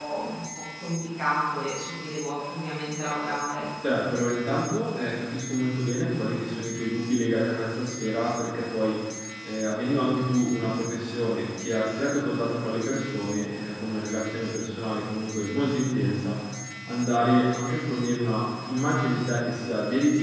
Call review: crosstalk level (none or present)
none